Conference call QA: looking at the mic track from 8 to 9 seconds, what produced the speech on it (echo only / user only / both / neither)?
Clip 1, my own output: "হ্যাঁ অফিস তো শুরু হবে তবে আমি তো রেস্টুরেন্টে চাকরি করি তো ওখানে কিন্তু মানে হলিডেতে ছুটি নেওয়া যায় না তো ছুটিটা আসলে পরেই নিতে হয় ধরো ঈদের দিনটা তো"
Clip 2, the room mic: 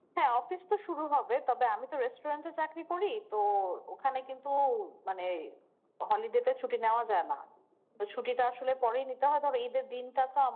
echo only